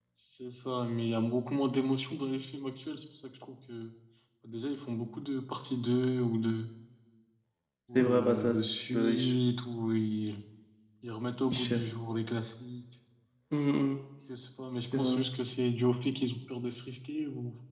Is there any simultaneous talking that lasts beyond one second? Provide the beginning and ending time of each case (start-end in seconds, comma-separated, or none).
8.0-9.3